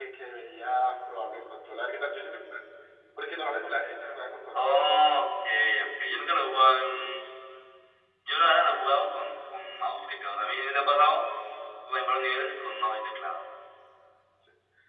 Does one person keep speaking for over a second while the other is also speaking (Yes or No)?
No